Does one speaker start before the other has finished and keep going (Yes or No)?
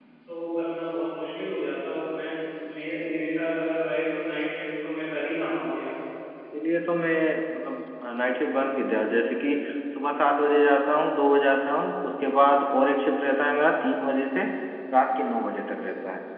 No